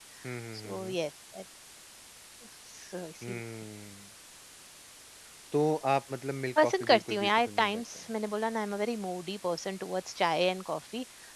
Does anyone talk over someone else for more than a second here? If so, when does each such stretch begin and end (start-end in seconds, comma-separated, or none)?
6.6-8.1